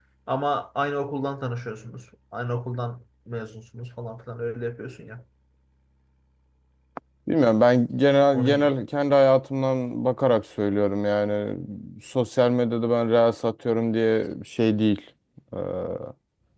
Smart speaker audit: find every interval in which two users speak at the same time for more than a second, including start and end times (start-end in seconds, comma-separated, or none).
none